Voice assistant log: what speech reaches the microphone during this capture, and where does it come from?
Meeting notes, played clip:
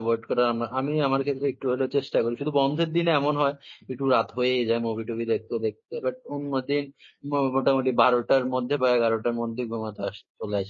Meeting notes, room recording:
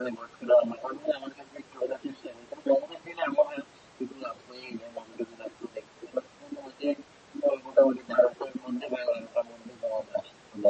echo only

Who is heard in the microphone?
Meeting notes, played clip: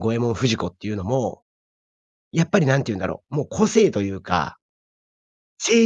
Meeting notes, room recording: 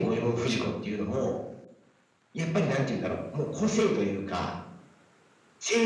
echo only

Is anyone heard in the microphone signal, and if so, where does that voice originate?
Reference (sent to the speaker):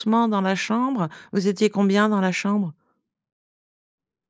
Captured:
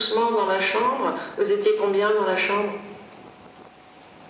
echo only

